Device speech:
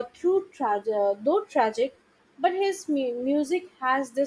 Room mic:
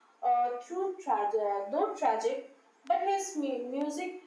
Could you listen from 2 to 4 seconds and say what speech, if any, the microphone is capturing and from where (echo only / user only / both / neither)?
echo only